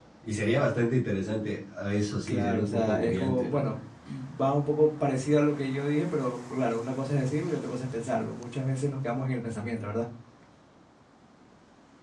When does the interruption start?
2.3 s

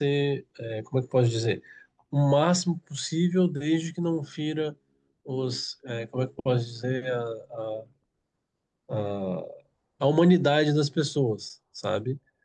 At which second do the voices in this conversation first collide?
none

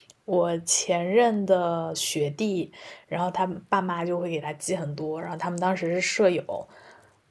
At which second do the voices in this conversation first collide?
none

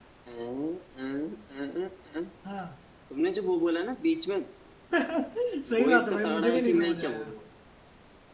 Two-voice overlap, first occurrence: 5.8 s

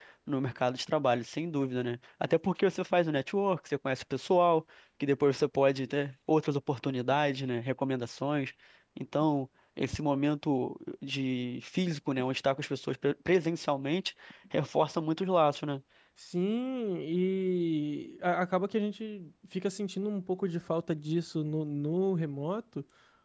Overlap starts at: none

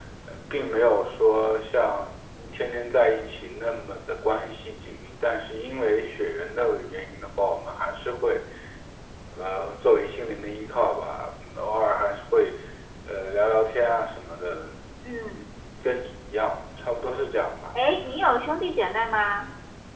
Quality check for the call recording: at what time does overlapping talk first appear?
none

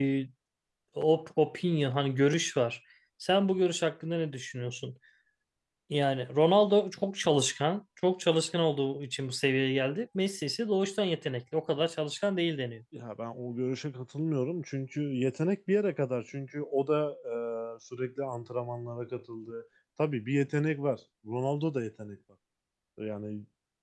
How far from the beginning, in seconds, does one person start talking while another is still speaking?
none

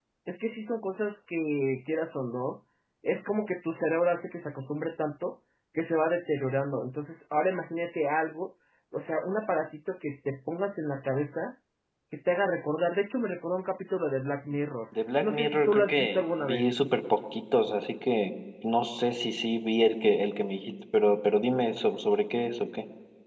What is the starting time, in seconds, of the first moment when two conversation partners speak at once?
15.2 s

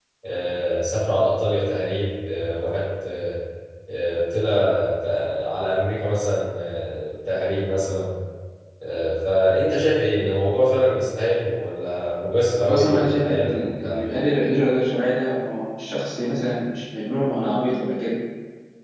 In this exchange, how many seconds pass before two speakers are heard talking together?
12.6 s

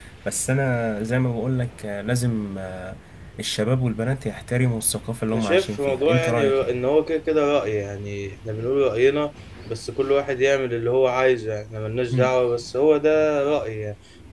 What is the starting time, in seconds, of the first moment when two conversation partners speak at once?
5.3 s

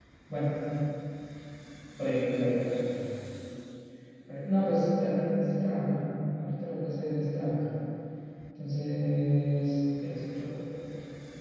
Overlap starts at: none

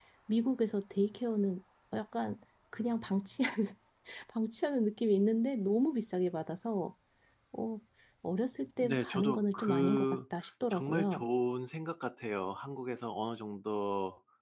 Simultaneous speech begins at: 8.8 s

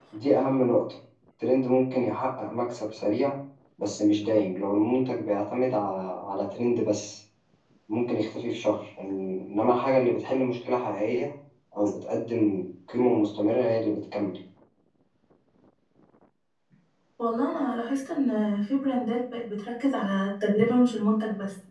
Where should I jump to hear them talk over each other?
none

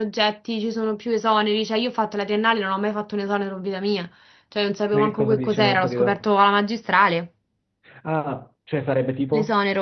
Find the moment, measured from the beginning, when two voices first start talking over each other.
4.9 s

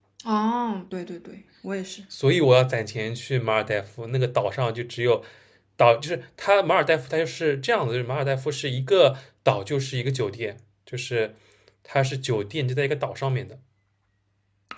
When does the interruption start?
none

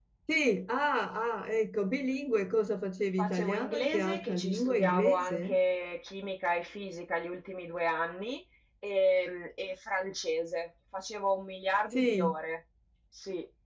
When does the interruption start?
3.2 s

